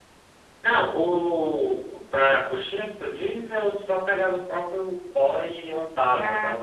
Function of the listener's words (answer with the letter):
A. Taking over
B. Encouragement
B